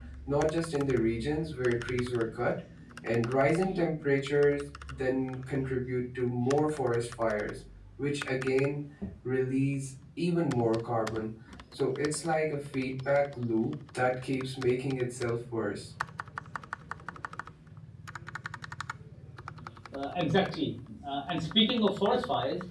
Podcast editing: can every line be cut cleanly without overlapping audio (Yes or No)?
Yes